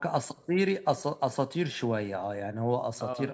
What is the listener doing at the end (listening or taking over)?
listening